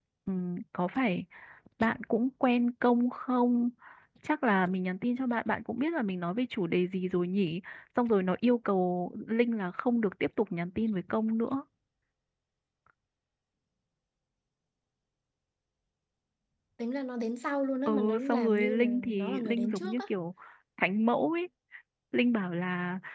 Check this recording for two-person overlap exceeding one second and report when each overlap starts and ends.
17.9-20.0

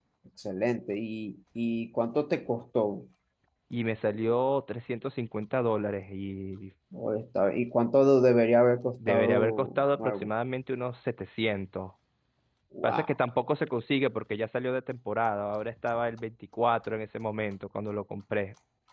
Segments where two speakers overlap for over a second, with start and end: 9.1-10.3

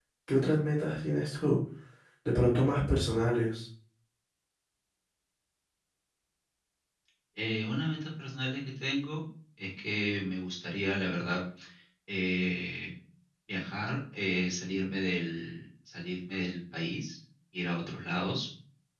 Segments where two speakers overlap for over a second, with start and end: none

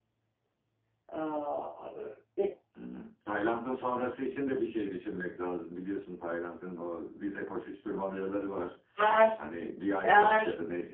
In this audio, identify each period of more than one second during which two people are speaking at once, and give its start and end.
none

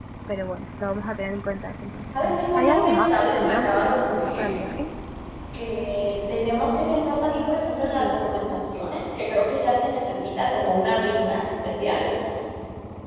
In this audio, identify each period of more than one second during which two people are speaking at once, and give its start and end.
2.2-4.5

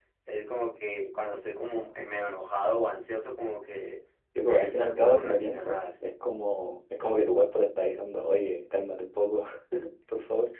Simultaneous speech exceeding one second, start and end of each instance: 4.4-6.1

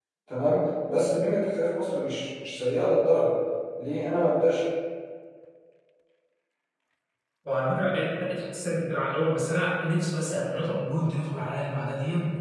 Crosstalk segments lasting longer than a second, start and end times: none

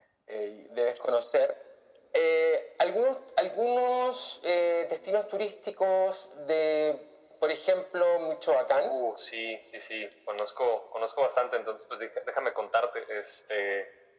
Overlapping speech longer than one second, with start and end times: none

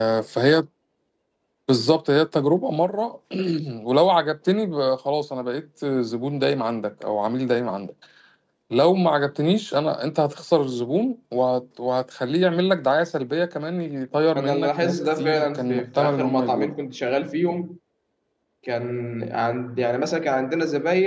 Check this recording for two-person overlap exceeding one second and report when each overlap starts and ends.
14.3-16.7

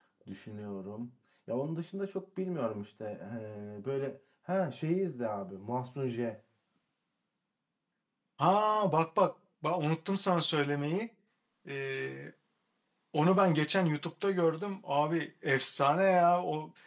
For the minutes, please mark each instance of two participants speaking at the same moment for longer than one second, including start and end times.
none

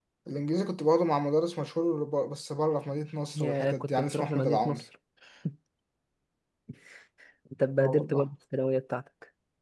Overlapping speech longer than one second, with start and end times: 3.3-4.8

